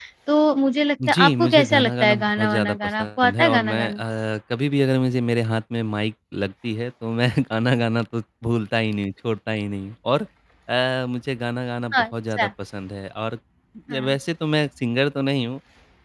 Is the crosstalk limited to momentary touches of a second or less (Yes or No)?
No